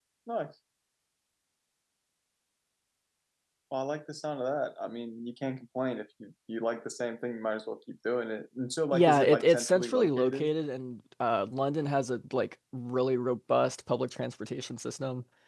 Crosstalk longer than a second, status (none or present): present